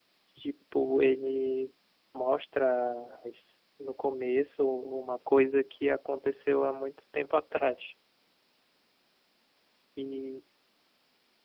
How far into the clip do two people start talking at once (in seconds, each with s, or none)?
none